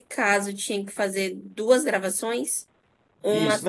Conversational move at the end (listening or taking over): taking over